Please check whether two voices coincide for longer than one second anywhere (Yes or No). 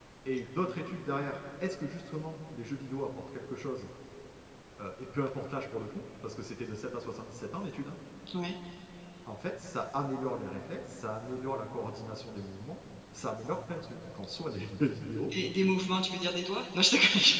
No